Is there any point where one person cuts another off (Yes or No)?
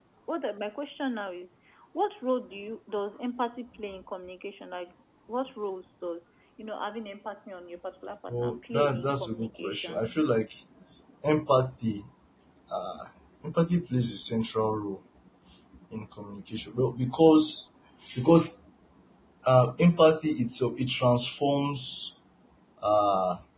Yes